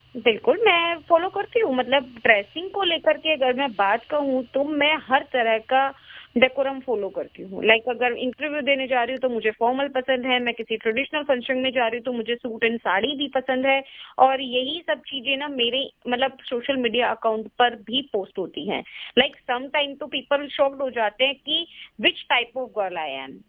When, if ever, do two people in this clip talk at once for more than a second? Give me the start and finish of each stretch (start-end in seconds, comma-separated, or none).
none